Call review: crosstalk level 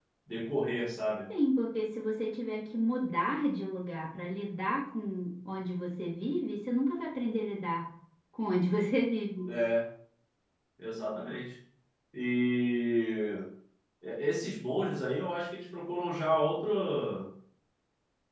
none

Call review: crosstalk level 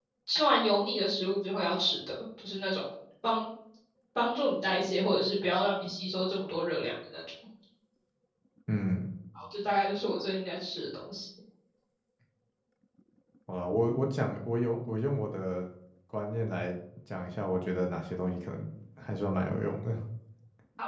none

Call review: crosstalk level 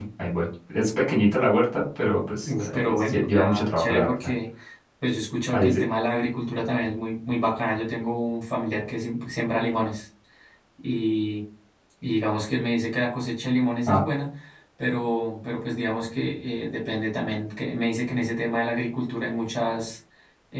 present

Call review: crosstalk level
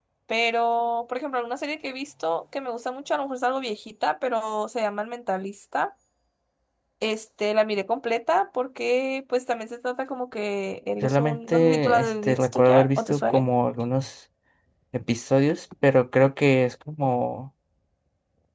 present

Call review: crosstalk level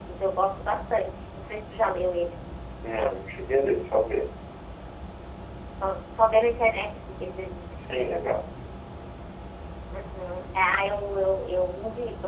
none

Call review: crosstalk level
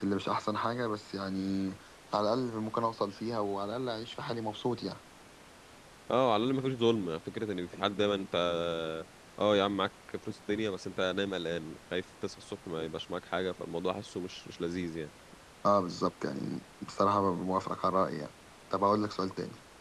none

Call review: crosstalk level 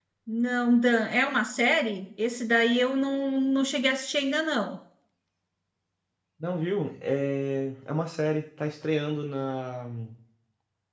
none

